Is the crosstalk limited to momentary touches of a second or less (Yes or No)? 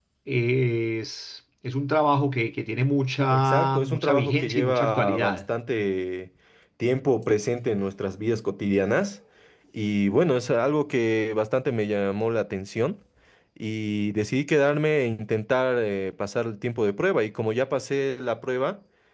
No